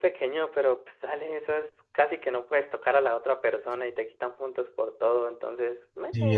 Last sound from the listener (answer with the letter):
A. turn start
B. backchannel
A